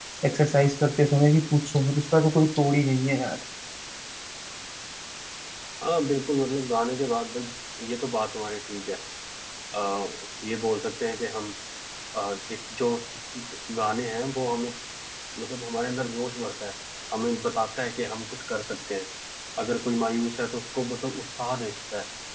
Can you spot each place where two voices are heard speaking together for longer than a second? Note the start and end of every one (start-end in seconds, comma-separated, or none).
none